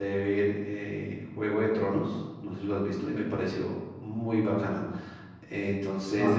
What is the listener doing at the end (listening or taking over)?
listening